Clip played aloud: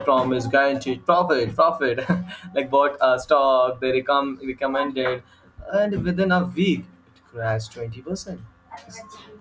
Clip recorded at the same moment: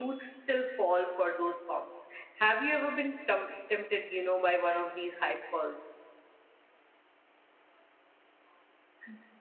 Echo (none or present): none